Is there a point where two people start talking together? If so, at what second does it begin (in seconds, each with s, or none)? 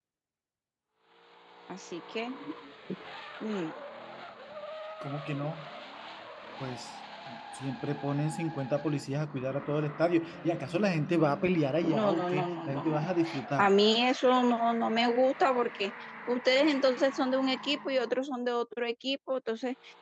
11.8 s